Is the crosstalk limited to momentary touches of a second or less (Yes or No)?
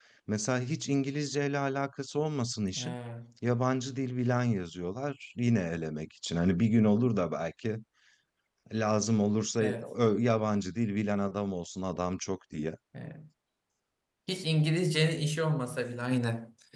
Yes